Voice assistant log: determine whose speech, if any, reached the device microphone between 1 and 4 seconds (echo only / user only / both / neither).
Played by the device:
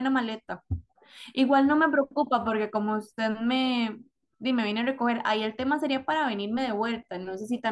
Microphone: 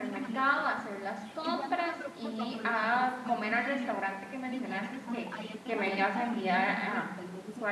both